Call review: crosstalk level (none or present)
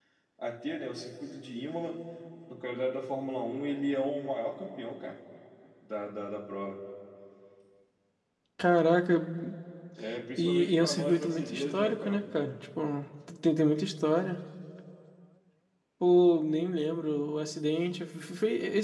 present